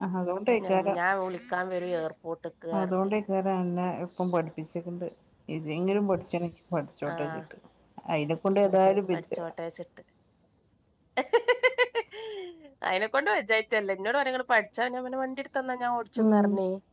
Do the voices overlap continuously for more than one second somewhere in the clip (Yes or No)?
No